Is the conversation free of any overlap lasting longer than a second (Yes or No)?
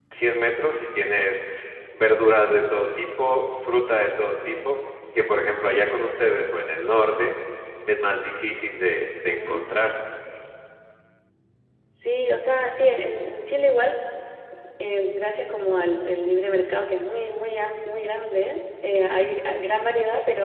Yes